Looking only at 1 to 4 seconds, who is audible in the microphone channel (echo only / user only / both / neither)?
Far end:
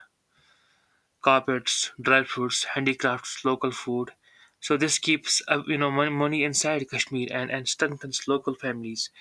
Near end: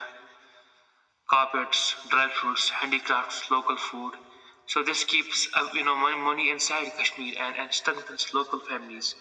echo only